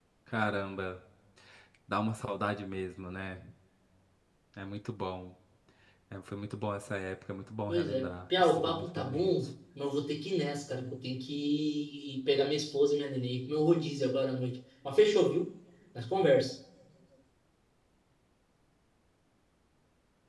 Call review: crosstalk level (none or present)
present